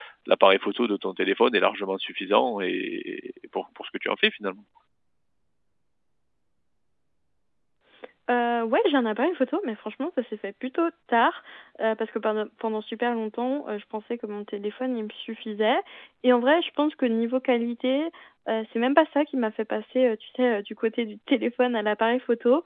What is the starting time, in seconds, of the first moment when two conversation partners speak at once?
none

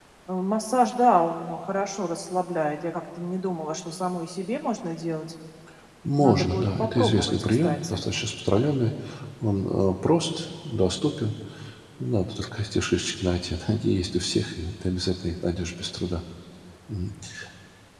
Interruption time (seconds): 6 s

